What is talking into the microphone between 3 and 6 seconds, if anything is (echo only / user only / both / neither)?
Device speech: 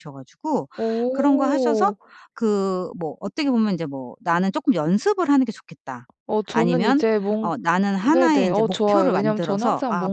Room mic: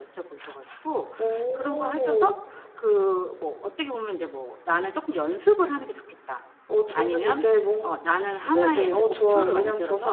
echo only